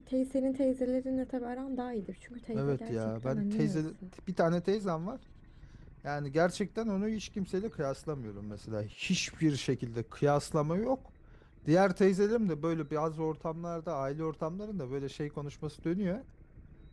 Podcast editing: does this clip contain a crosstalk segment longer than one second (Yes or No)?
Yes